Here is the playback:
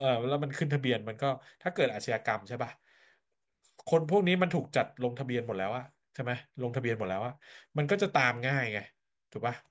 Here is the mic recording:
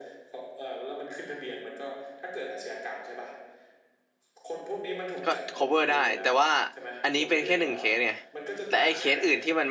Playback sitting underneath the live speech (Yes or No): Yes